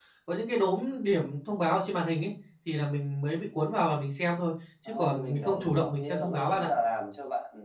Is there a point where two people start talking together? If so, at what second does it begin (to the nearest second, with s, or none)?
5 s